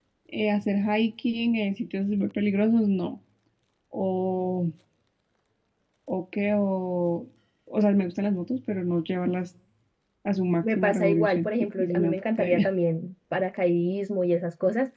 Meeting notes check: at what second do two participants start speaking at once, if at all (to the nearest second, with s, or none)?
11 s